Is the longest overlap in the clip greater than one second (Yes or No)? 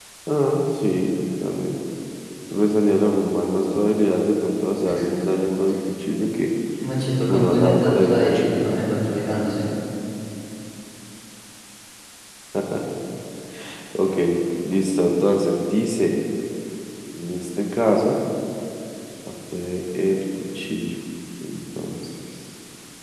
Yes